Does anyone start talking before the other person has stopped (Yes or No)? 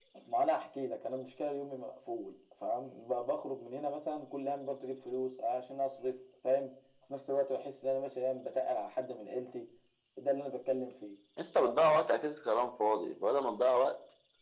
No